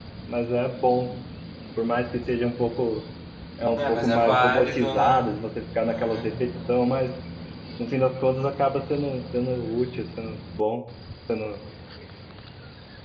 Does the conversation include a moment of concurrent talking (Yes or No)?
Yes